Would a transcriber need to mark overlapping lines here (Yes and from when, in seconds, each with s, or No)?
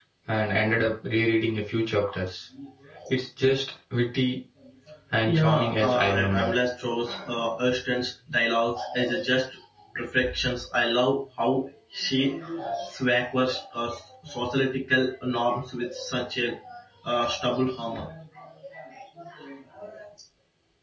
Yes, from 5.2 s